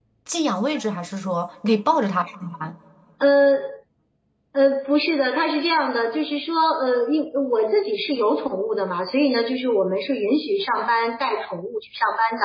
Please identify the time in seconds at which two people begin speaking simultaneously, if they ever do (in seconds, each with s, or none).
none